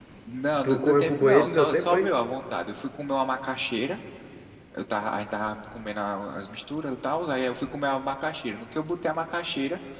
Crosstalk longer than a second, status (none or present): present